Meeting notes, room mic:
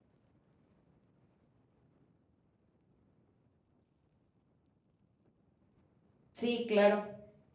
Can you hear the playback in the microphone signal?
No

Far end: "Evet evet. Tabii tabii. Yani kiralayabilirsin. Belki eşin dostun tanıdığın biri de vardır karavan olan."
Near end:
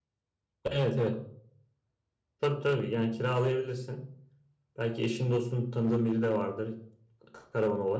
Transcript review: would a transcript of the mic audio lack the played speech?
No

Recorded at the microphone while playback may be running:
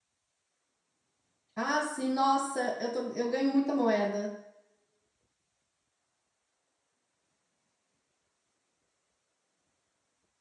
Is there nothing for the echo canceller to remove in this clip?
Yes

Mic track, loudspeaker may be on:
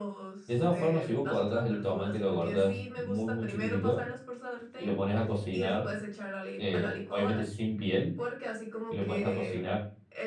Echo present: Yes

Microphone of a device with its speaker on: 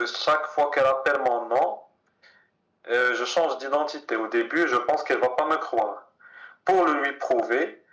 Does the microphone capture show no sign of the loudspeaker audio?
No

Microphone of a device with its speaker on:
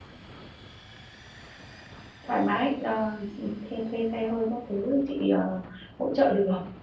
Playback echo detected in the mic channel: No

